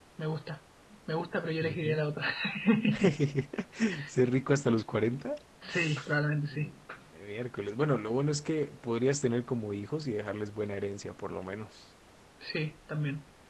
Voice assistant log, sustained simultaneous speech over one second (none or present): none